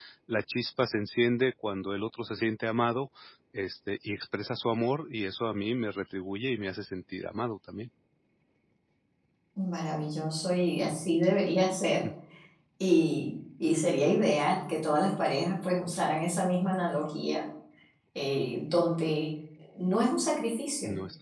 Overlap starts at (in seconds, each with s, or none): none